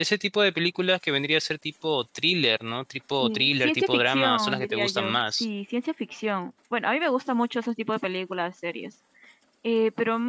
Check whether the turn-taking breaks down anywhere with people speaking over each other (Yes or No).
Yes